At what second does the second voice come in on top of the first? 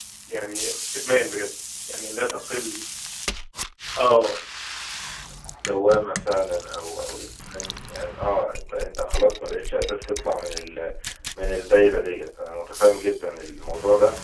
none

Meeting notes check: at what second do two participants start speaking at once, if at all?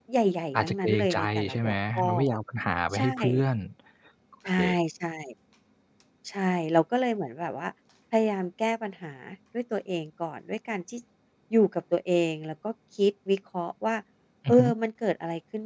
0.5 s

